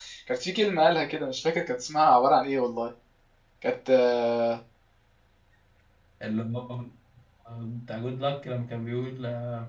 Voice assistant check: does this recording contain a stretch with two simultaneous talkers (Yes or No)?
No